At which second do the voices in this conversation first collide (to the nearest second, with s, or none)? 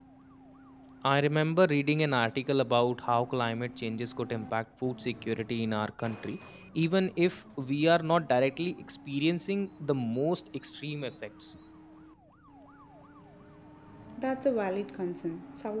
none